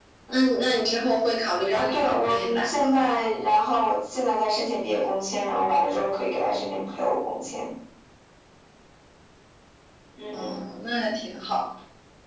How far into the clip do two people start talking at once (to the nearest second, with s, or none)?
2 s